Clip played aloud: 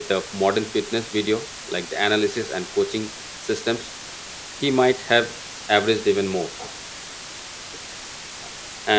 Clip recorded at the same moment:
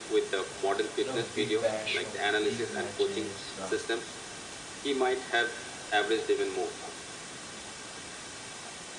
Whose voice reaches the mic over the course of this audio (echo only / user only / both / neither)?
both